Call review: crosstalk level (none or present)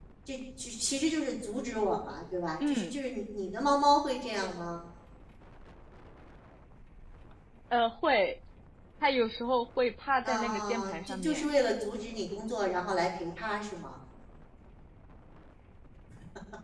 present